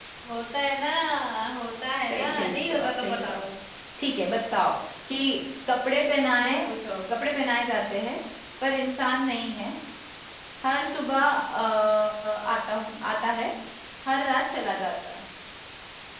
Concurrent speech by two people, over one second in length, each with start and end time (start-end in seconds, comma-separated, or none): 2.0-3.4